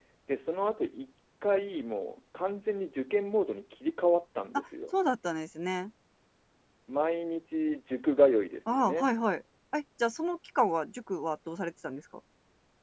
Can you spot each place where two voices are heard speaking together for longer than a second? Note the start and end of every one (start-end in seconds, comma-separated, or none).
none